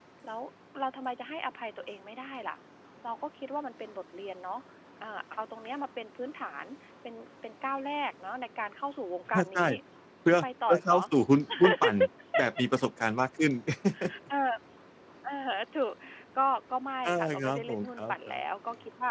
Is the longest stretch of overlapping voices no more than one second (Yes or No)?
No